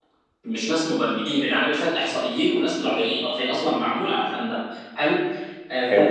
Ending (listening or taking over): listening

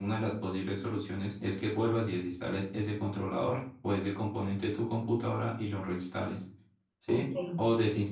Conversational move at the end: listening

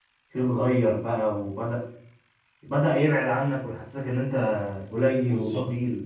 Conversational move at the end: taking over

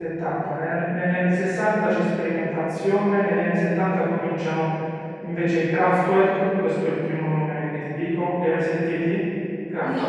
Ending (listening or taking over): taking over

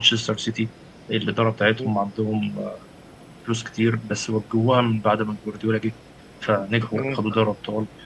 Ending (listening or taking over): listening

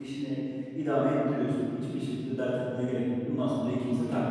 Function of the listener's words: taking over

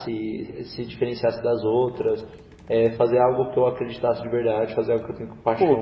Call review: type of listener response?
taking over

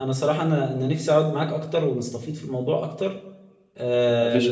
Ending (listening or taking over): listening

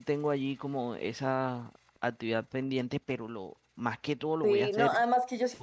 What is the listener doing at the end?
taking over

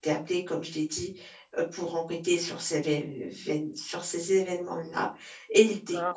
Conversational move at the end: listening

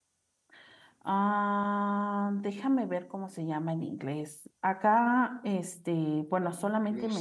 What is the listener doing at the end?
taking over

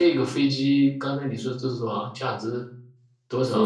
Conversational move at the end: taking over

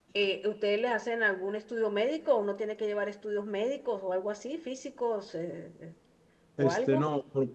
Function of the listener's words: taking over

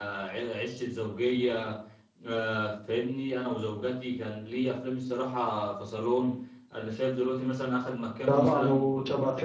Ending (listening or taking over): taking over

